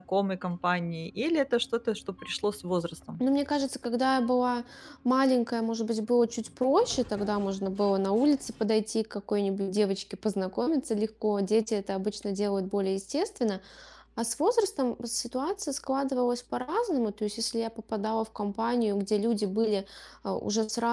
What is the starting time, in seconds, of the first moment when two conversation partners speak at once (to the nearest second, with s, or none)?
none